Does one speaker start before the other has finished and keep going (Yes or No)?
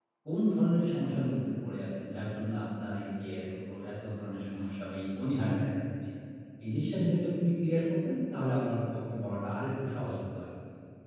No